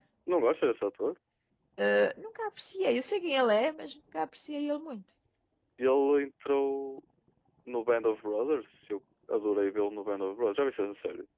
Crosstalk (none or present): none